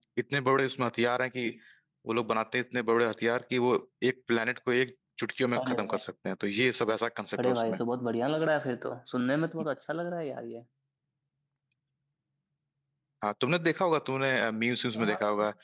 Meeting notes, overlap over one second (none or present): none